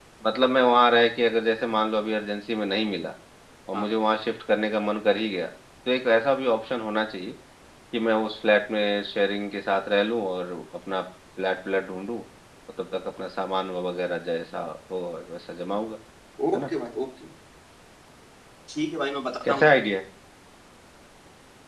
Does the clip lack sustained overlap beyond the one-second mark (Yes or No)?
Yes